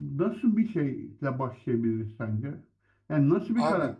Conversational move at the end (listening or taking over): listening